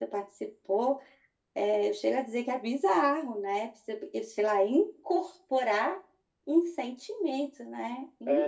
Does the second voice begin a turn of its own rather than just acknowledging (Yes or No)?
Yes